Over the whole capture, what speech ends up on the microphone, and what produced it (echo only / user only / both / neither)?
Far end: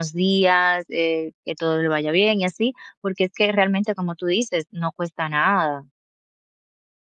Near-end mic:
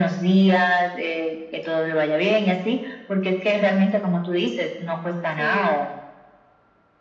both